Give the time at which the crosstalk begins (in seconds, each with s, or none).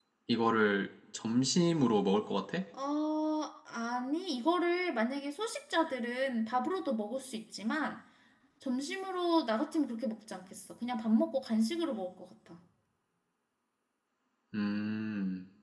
none